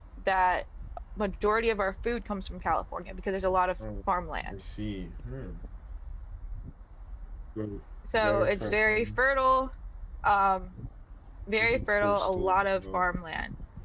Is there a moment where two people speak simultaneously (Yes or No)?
Yes